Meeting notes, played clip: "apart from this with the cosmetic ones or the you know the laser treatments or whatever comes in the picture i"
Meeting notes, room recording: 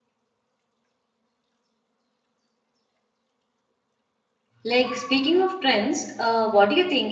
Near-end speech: present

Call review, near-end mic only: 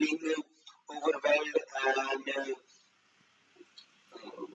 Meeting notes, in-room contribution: none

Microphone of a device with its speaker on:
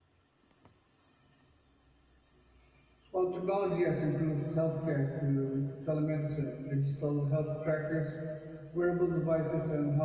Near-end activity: present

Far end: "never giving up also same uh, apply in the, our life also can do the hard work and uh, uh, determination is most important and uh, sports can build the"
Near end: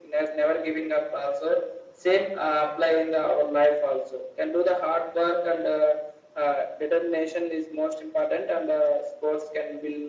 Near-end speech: none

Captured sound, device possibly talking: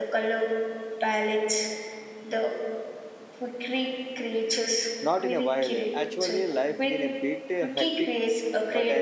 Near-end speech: present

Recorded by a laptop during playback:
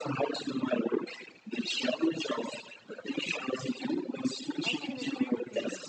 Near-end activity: present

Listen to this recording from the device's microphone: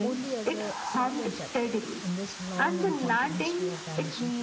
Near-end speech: present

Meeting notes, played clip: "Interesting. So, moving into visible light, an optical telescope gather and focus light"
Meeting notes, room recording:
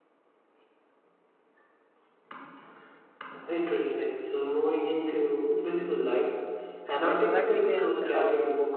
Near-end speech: present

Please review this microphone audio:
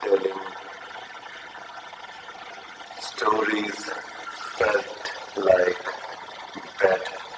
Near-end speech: none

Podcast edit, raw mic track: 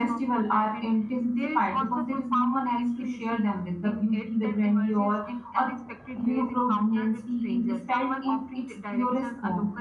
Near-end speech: present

